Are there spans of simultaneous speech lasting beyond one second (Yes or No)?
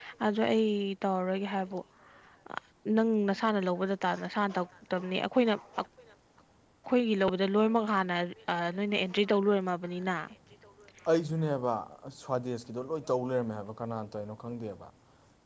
No